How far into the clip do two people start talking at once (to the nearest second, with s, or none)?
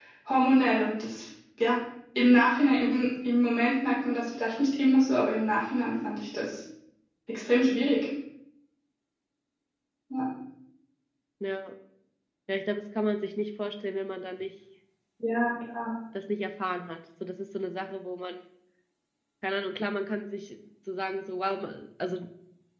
none